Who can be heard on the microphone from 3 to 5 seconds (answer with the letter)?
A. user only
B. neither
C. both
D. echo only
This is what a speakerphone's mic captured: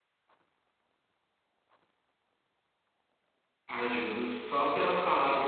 A